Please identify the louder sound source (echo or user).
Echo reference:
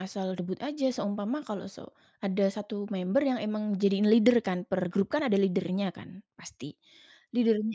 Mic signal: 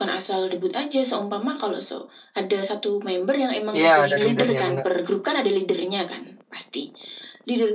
user